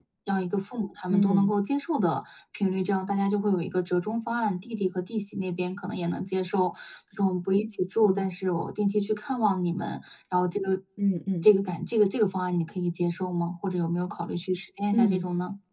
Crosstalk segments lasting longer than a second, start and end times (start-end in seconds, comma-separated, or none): none